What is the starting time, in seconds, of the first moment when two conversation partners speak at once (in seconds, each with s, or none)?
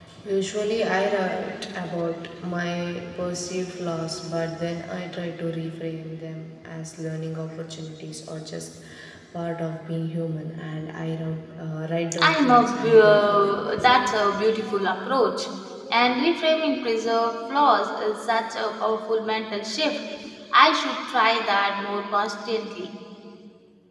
12.1 s